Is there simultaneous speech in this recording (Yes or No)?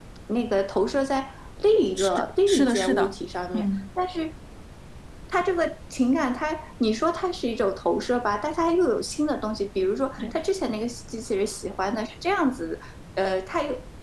Yes